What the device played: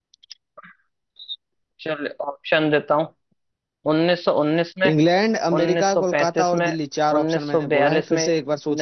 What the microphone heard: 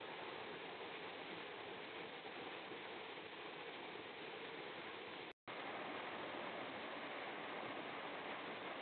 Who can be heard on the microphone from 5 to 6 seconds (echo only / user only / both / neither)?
neither